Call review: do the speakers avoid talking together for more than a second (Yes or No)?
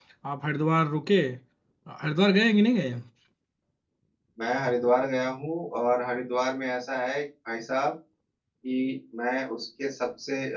Yes